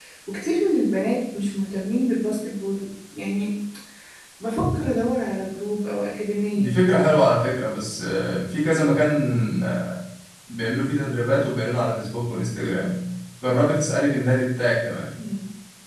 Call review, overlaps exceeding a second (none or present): none